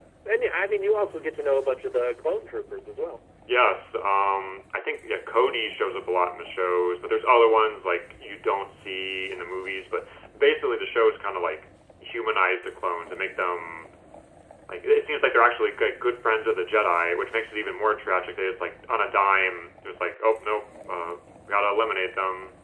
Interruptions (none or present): none